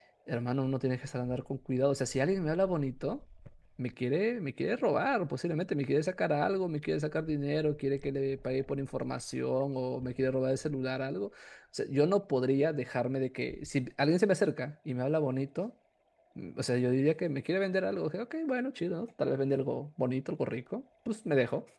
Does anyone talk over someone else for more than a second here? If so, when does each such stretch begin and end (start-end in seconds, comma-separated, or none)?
none